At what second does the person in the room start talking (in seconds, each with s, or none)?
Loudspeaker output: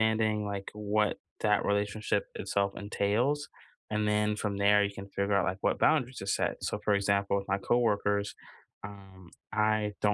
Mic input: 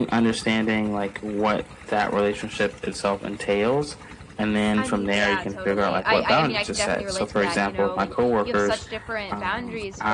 4.7 s